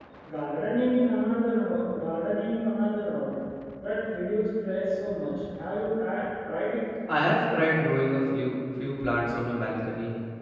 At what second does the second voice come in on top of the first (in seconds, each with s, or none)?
none